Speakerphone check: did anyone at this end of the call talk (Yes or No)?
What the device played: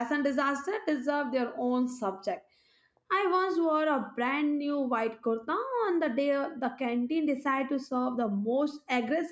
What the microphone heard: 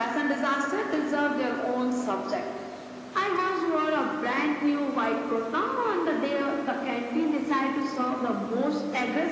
No